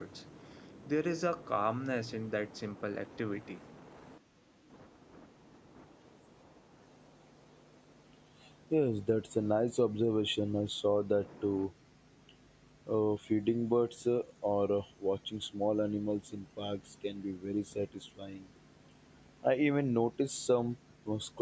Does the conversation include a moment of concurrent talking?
No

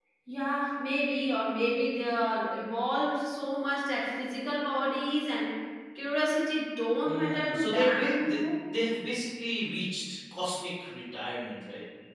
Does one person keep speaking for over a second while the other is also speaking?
Yes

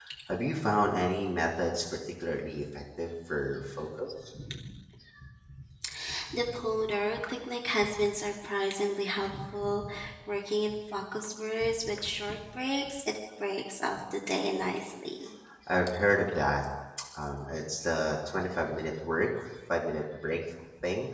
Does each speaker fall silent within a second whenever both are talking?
Yes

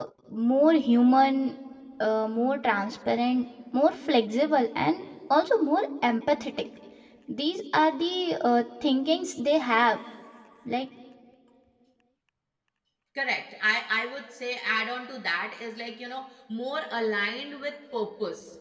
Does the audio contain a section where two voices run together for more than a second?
No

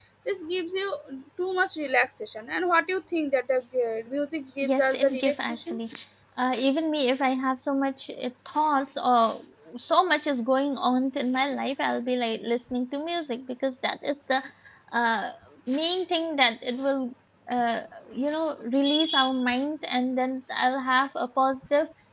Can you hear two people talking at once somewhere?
Yes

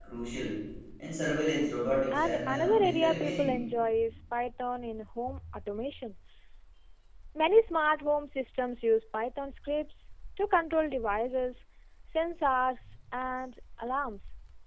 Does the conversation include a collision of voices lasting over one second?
Yes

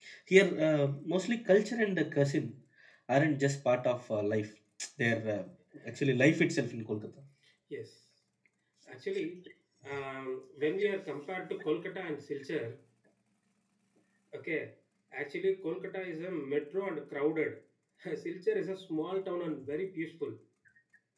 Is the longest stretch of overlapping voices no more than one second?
Yes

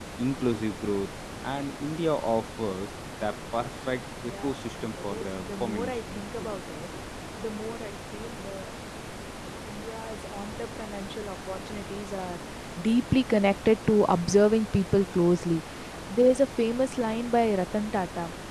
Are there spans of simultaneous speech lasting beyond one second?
Yes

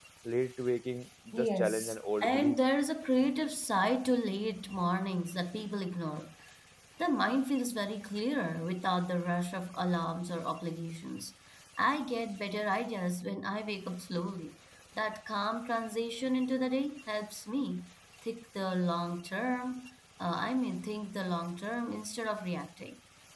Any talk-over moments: Yes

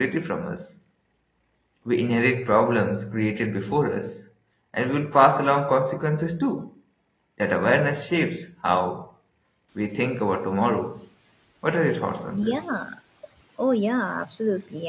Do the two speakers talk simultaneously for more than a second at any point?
No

